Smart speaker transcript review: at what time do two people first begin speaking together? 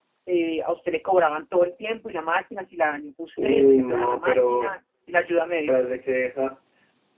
3.4 s

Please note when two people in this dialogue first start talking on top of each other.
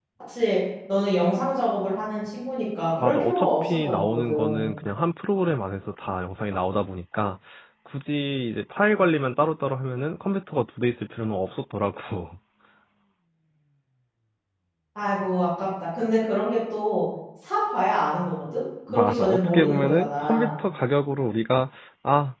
3.0 s

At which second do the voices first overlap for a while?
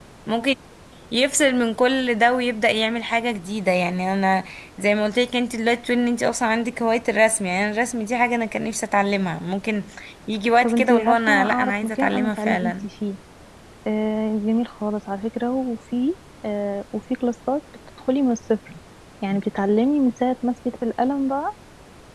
10.6 s

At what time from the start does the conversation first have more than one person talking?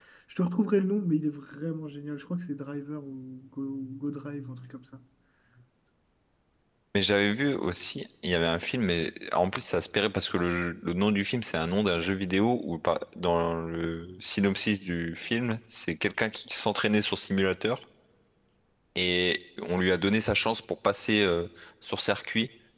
none

